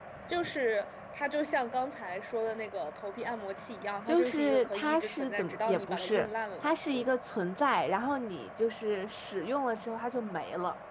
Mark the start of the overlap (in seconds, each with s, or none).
4.1 s